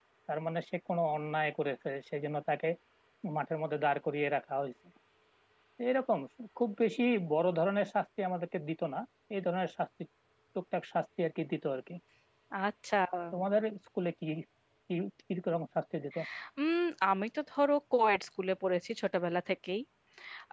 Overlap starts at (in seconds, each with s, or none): none